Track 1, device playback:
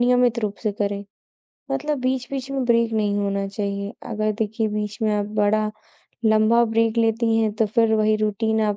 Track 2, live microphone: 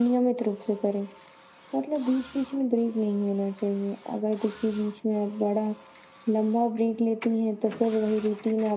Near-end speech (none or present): none